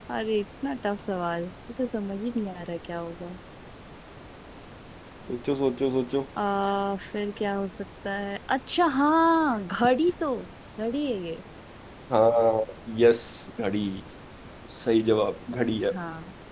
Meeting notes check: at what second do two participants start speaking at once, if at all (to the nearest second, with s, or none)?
none